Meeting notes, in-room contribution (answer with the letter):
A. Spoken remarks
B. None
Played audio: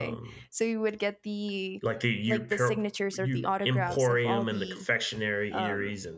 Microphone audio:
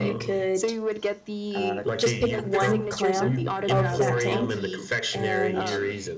A